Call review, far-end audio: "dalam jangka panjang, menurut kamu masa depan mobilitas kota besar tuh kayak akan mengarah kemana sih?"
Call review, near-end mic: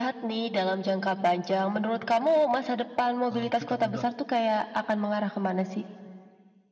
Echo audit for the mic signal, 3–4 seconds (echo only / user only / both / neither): both